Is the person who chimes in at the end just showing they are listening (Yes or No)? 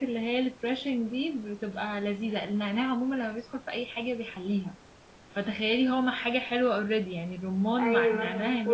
No